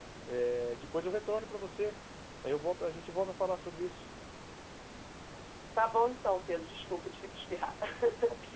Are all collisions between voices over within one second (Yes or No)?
Yes